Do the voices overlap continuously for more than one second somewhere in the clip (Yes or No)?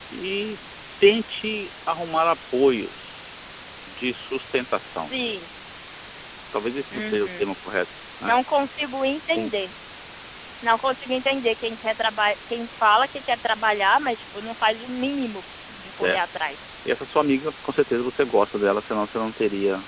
No